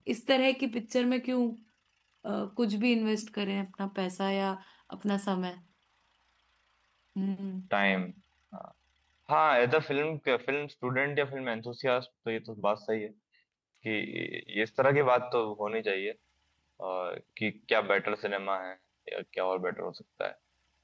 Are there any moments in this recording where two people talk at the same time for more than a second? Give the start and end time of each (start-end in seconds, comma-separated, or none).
none